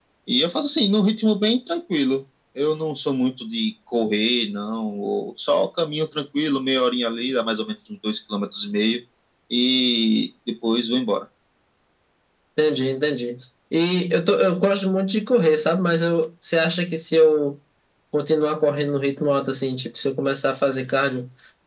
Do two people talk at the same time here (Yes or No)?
No